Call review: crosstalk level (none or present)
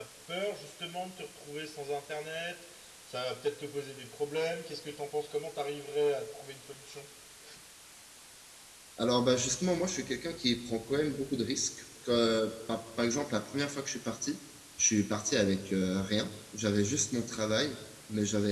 none